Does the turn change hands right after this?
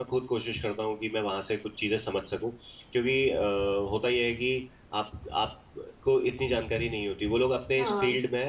No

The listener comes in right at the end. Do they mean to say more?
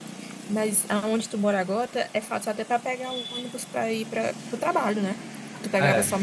No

